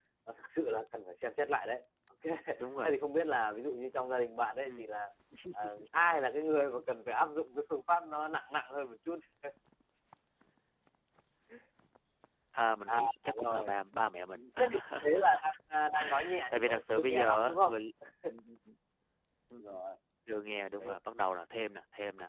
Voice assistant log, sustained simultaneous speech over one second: present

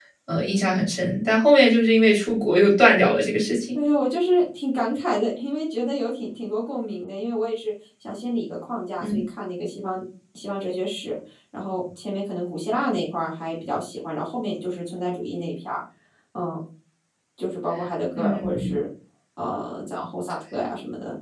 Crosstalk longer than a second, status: none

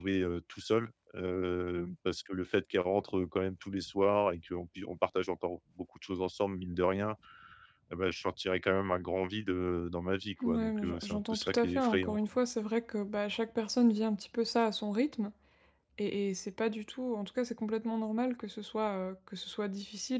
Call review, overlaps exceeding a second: present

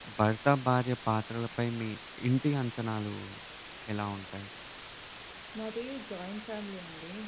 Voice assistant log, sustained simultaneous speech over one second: none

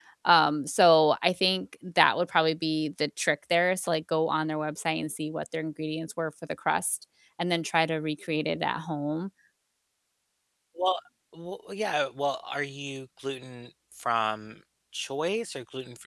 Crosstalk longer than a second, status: none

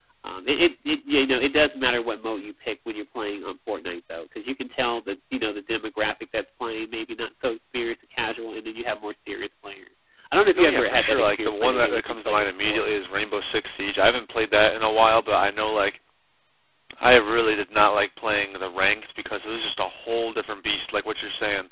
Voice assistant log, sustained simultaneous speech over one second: present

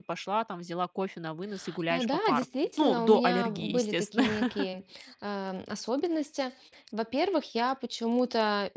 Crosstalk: present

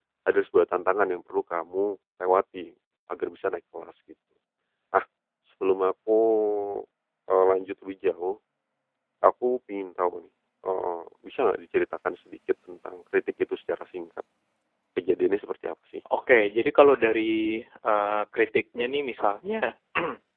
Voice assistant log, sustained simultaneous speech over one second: none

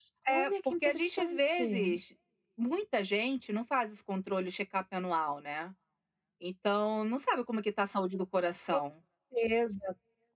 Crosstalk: present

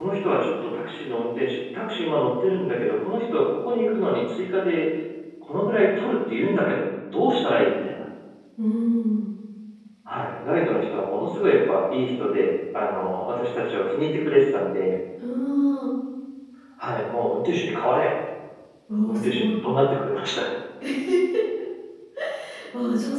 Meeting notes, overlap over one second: none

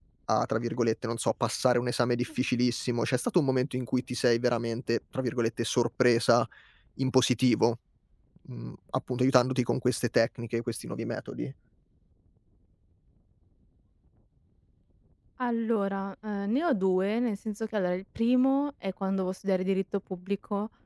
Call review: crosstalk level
none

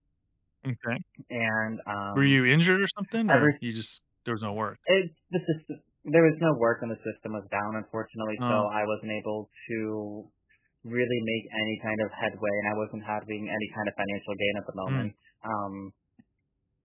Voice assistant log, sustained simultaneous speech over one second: none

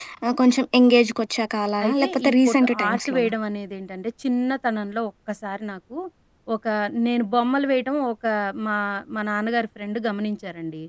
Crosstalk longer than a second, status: present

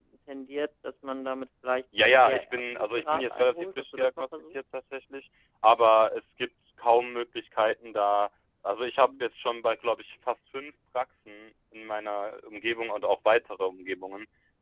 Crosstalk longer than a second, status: present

